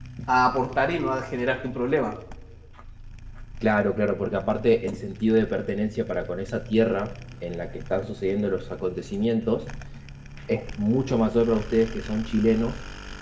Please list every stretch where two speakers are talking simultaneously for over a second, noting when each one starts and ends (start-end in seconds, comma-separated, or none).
none